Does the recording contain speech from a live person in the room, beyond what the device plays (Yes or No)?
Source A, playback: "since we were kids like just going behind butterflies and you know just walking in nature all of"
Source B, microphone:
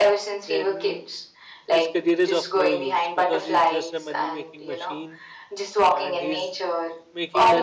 Yes